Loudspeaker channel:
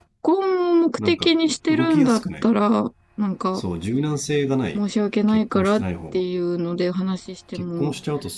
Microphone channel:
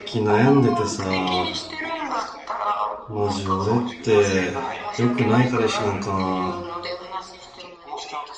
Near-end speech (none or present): present